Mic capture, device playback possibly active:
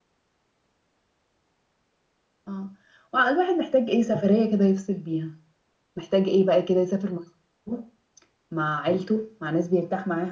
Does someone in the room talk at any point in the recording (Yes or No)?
Yes